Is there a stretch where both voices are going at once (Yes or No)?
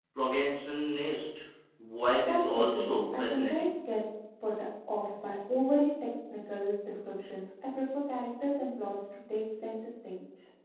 Yes